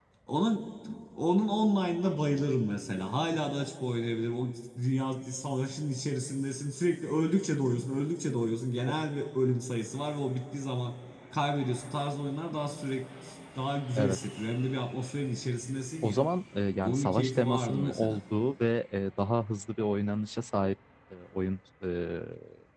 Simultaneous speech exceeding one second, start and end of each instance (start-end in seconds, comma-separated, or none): 16.8-18.2